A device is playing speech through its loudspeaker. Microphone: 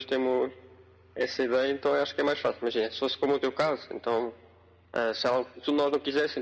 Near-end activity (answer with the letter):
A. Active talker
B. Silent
B